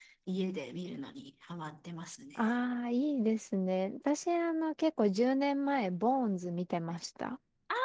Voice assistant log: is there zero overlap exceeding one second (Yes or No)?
Yes